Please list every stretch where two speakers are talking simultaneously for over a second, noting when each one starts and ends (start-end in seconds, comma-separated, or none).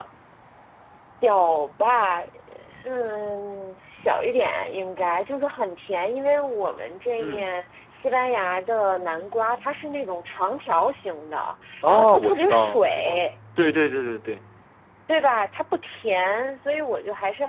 11.9-13.3